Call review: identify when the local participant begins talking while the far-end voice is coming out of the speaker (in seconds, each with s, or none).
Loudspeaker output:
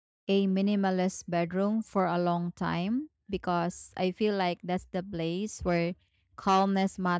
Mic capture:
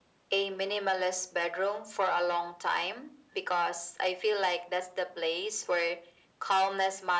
none